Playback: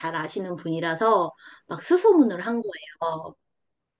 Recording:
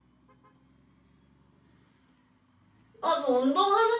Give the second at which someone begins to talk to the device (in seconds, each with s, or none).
3.0 s